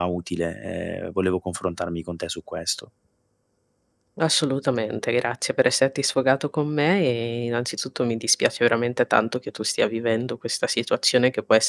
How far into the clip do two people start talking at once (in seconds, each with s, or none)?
none